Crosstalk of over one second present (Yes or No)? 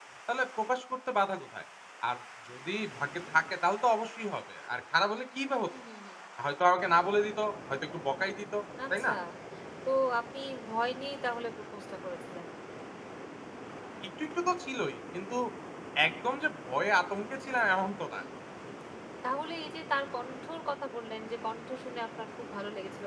No